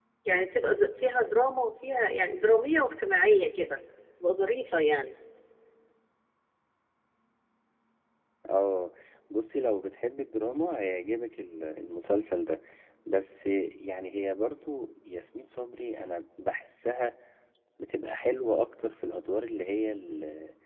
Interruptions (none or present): none